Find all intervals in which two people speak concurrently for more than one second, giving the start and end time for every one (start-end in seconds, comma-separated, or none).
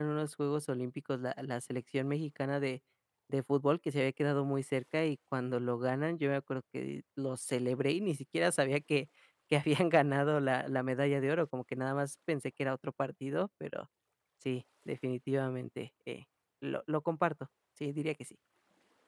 none